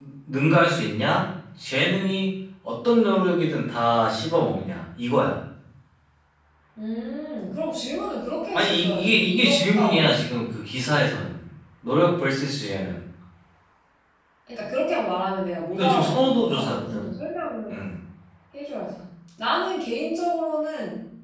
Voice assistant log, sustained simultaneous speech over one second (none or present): present